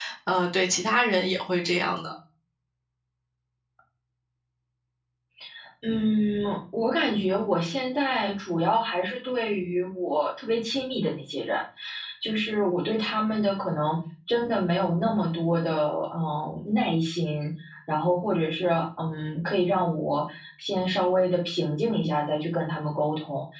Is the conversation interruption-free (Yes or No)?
Yes